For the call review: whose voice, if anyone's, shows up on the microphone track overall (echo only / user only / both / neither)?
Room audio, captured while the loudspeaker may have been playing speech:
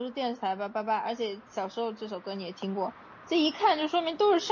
user only